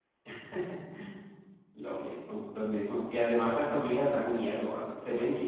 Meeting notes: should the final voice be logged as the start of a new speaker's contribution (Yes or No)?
No